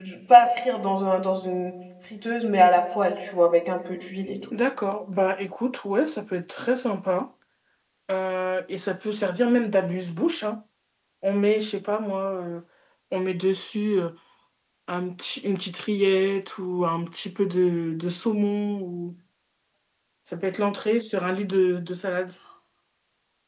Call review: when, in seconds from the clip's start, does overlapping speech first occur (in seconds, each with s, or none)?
none